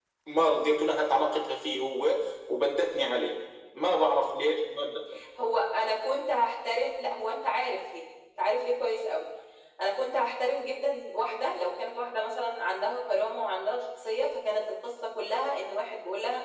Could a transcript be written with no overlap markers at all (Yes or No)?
Yes